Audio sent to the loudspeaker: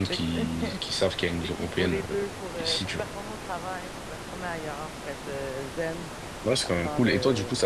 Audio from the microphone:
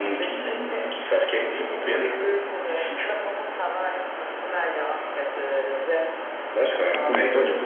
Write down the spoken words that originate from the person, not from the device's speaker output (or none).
none